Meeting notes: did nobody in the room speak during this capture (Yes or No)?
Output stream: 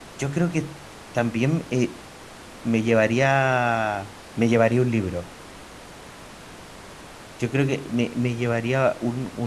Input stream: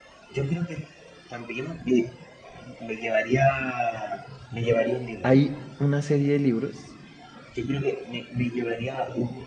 No